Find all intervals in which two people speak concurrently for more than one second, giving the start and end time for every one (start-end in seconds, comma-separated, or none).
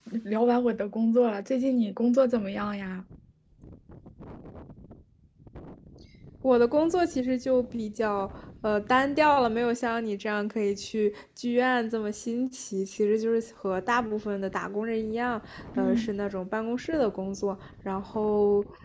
none